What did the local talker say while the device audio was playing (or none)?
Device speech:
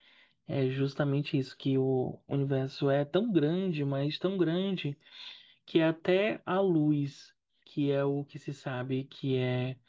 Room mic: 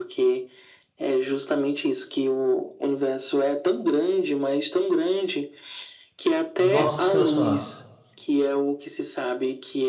Do nosso sistema solar.